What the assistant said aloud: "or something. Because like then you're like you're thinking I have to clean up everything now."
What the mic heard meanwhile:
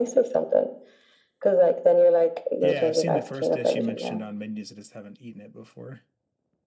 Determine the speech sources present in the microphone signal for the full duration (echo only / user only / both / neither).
both